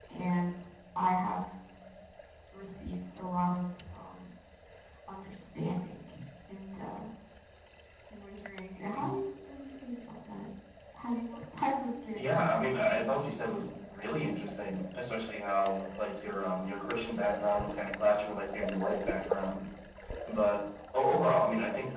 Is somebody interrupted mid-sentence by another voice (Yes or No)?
Yes